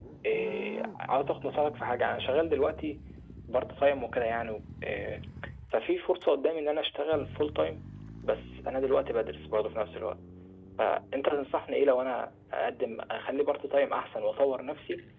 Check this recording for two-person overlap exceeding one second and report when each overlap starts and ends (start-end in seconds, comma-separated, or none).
none